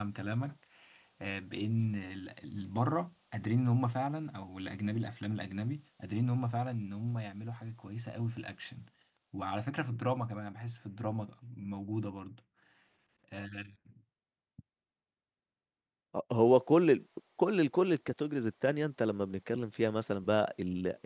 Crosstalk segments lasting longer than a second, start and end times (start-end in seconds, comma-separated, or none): none